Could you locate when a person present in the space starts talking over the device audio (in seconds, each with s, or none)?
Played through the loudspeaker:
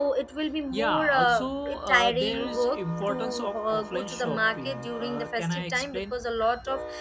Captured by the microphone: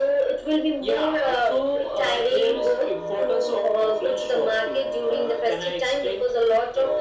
none